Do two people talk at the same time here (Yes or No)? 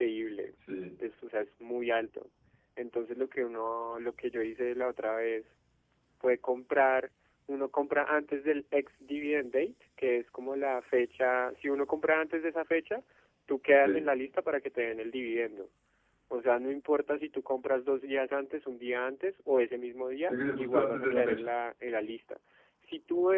Yes